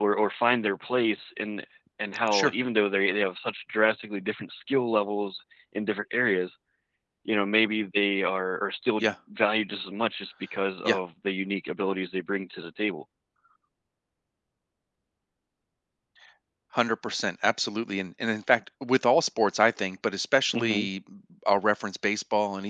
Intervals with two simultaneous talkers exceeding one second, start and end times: none

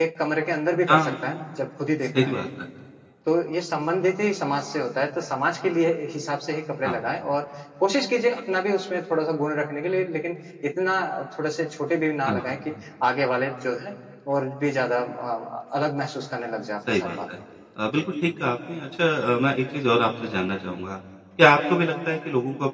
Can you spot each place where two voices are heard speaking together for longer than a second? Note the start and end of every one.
none

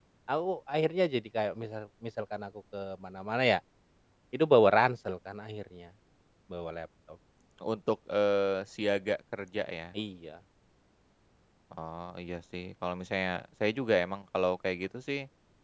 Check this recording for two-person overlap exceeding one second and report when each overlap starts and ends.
none

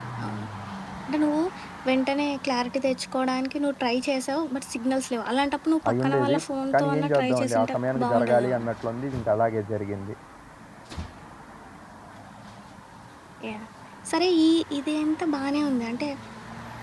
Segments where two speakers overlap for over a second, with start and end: 6.7-8.6

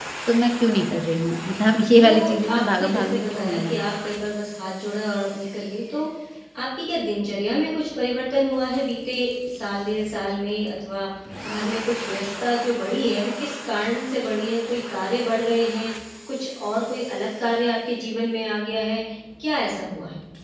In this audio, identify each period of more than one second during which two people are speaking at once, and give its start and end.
2.5-3.8

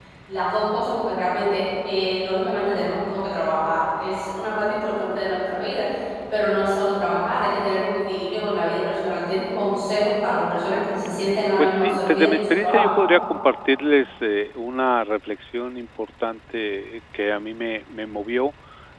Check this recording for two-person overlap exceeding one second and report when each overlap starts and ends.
11.6-12.9

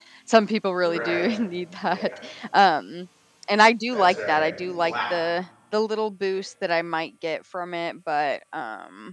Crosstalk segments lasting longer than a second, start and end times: 3.9-5.1

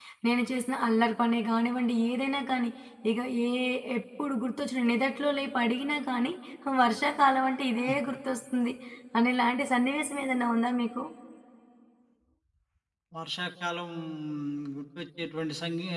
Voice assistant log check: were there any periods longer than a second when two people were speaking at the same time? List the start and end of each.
none

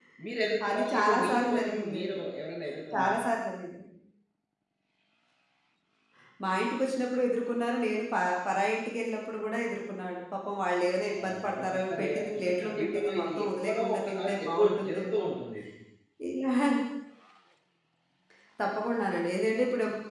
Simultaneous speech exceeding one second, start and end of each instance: 0.7-2.2, 11.2-15.2

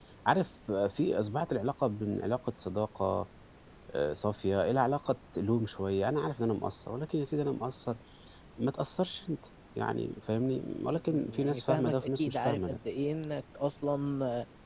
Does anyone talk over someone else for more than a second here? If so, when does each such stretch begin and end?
10.9-12.8

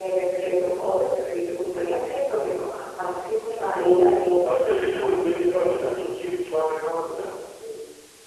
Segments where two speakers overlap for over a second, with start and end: 3.7-5.0

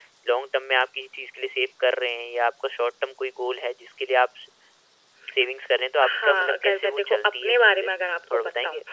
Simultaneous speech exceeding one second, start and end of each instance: 6.0-7.9

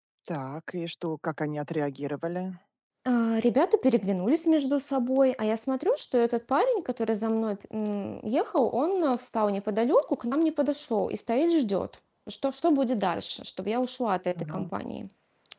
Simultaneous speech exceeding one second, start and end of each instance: none

